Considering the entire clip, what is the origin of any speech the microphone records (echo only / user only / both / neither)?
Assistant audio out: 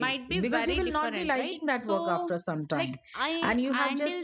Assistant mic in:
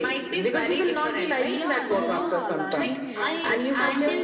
both